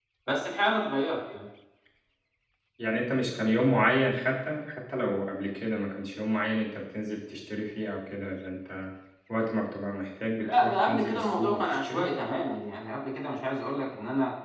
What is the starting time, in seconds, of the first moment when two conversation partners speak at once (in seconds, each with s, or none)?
10.4 s